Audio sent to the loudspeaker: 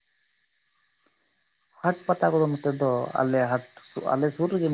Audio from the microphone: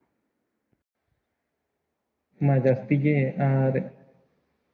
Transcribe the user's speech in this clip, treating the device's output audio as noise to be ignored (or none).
ᱢᱟ ᱡᱟᱹᱥᱛᱤ ᱜᱮ ᱟᱨ